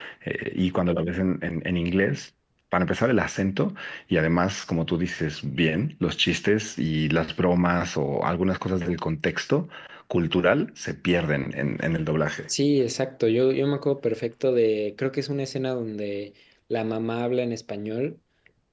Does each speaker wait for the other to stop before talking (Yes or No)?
Yes